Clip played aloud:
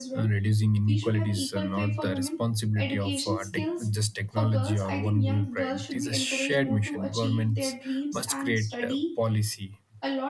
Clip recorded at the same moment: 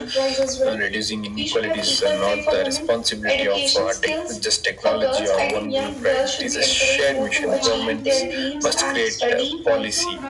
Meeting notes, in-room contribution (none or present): present